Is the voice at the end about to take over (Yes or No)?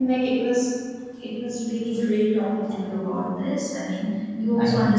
No